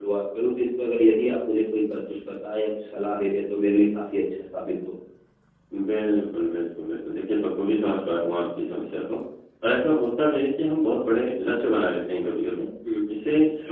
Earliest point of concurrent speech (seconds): none

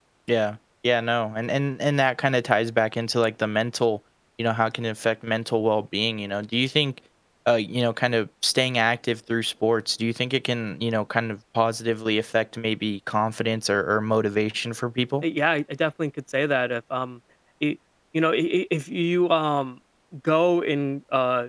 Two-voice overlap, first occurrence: none

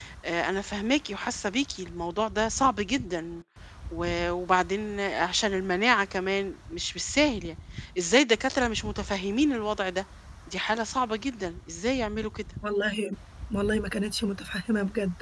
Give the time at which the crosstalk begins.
none

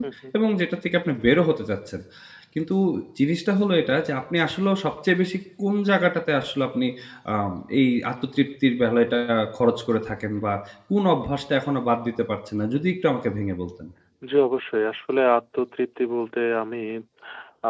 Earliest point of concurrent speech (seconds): none

